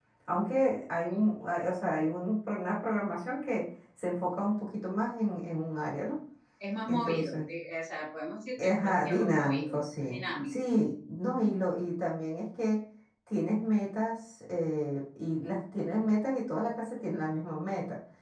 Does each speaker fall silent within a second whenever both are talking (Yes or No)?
No